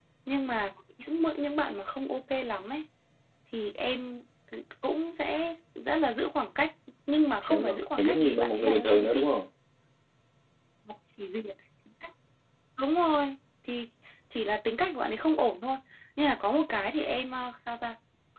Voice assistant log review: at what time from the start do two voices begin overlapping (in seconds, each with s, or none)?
7.4 s